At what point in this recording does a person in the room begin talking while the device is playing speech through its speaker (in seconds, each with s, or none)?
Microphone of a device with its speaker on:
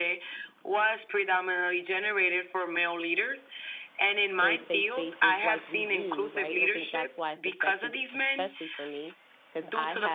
4.4 s